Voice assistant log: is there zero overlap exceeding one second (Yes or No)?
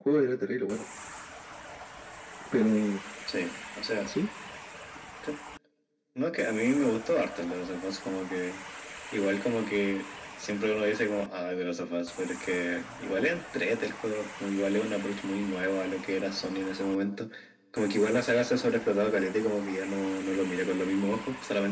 Yes